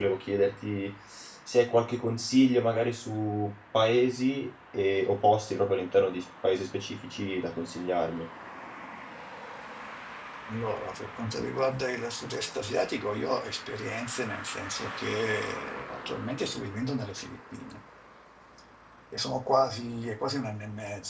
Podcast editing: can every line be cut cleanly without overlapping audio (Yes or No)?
Yes